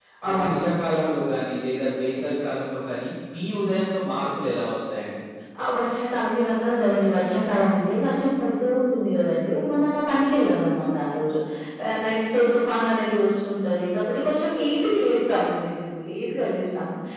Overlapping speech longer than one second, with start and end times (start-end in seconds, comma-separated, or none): none